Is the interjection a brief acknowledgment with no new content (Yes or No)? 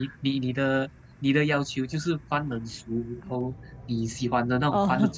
Yes